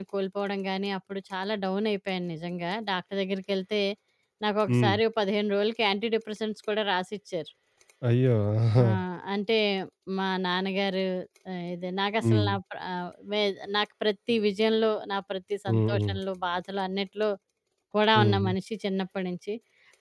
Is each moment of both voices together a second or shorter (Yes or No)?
Yes